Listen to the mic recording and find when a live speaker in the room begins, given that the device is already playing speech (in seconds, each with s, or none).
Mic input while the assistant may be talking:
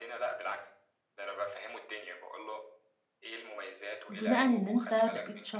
4.1 s